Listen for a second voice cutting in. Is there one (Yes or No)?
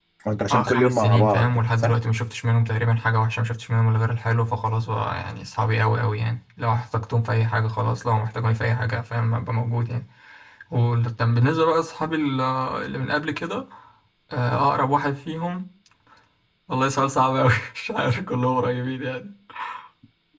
Yes